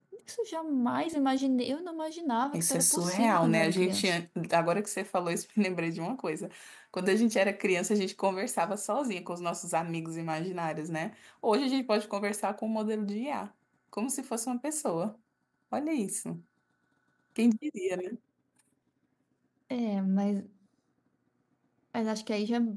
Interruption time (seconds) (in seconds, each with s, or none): 2.5 s